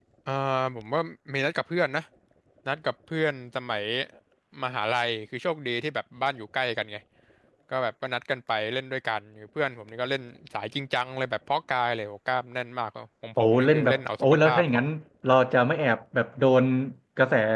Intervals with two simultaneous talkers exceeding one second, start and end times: 13.4-14.7

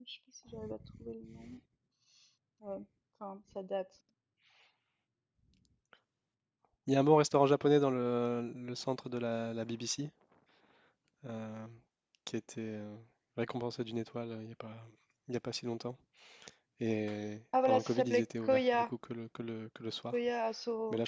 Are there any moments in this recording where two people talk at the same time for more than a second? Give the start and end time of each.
17.6-18.9

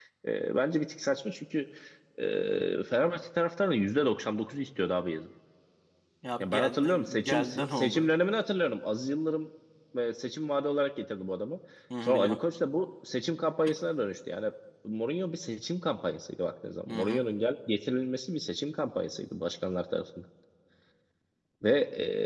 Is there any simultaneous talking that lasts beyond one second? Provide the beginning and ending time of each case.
6.4-8.1

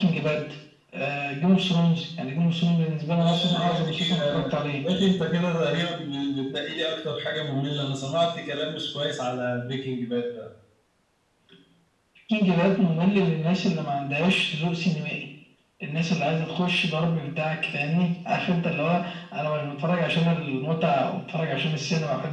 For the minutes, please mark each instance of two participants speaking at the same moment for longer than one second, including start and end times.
3.2-4.4

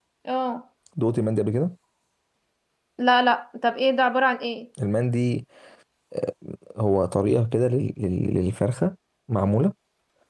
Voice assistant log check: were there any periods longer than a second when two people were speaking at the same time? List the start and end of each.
none

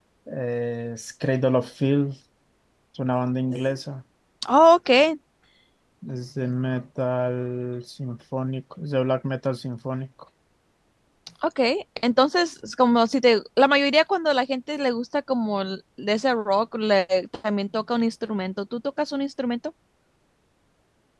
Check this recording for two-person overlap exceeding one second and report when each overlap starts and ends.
none

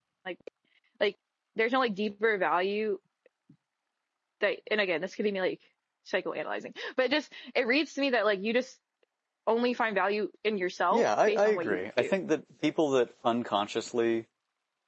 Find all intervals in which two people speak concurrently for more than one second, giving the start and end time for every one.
10.9-12.2

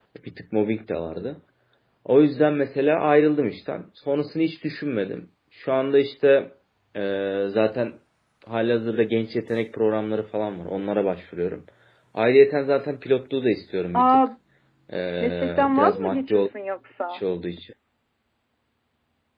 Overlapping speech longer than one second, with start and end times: 15.2-16.5

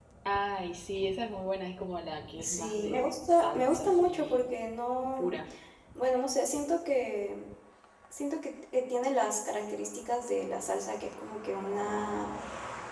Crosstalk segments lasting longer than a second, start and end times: 2.4-4.4

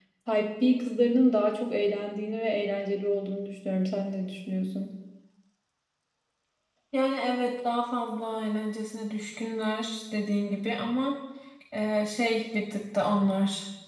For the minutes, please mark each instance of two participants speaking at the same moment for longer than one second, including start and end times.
none

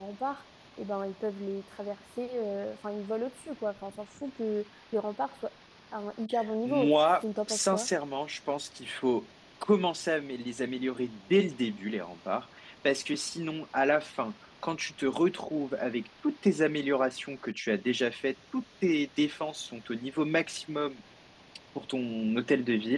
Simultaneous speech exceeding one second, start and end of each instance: 6.6-7.9

